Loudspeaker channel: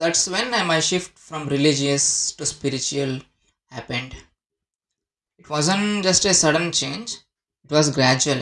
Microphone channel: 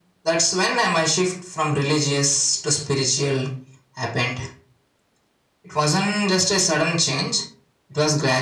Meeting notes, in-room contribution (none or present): none